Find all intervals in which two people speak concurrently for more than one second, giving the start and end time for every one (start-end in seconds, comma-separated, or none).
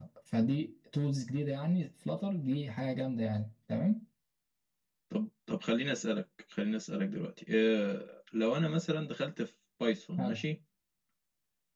none